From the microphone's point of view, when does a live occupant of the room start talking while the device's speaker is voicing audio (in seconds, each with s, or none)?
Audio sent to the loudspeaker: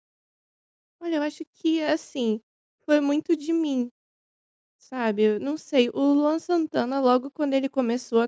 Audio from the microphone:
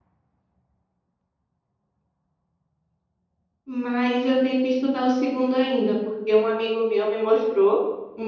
3.7 s